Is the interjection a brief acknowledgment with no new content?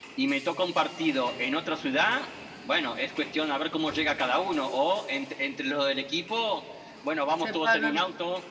Yes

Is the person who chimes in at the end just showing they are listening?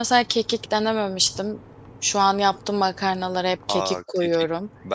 No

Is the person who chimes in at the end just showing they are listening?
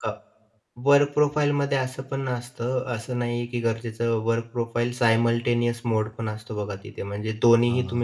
Yes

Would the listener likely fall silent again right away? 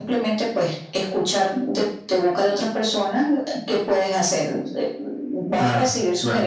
Yes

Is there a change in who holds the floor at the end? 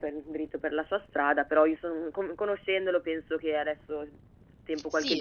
Yes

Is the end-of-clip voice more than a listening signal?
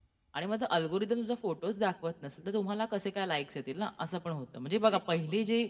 No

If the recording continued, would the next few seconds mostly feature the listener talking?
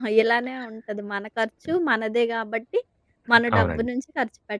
No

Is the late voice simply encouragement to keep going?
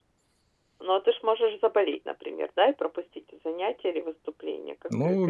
No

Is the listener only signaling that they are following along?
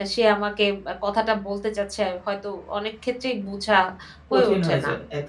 No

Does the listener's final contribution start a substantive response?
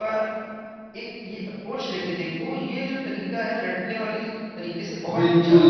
Yes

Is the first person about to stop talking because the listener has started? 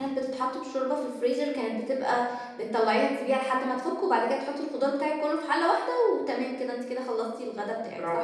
Yes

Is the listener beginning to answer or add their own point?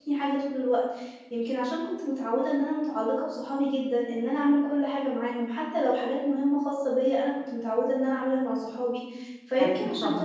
No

